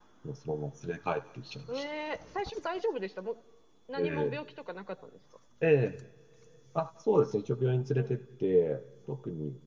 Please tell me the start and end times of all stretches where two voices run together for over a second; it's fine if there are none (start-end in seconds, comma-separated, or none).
none